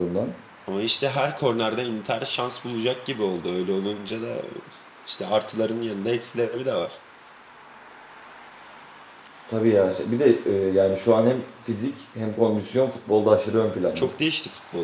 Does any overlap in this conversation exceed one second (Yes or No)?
No